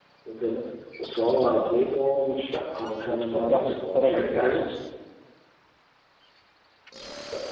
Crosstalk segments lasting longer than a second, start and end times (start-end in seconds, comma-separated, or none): 3.0-4.7